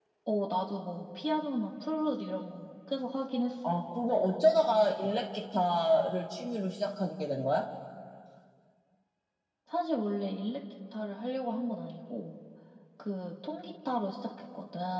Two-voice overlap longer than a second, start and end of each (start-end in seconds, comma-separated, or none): none